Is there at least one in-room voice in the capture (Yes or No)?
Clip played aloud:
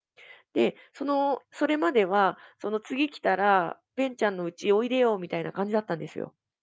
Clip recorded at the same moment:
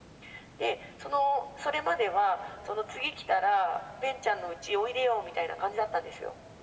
No